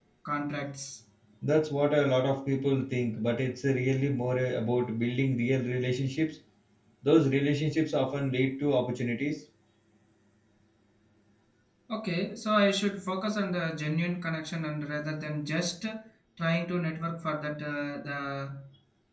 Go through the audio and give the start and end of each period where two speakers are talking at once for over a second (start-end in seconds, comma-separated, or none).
none